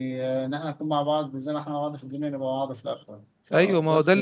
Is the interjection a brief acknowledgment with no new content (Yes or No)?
No